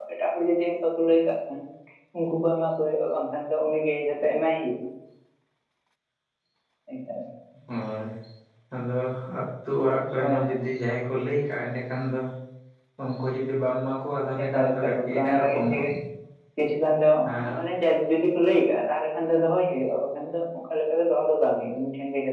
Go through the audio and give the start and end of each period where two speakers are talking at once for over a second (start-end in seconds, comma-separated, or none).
14.4-15.8